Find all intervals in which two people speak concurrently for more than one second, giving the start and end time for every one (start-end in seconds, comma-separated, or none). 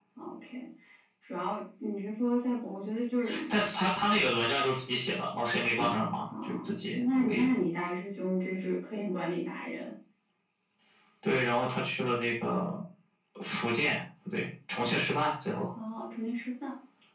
none